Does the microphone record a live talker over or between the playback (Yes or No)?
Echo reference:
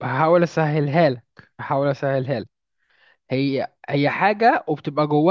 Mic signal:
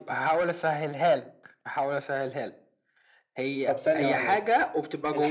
Yes